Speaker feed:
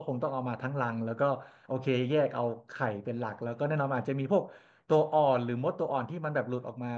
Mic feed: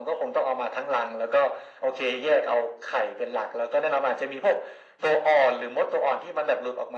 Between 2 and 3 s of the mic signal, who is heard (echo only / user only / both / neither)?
echo only